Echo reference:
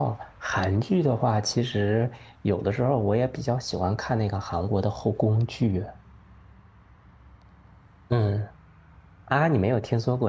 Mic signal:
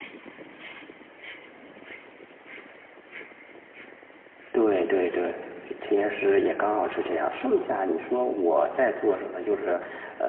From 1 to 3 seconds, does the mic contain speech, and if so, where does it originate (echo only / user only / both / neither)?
neither